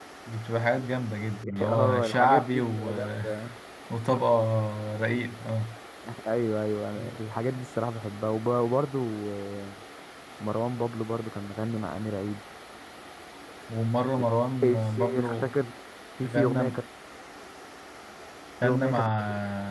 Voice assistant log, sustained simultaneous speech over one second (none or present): present